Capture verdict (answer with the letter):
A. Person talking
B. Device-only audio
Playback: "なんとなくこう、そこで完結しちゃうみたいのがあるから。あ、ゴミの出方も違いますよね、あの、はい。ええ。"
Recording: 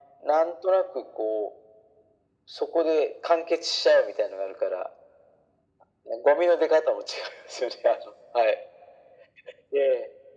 B